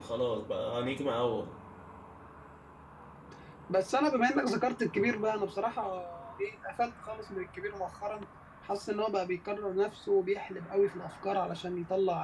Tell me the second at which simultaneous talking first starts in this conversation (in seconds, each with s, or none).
none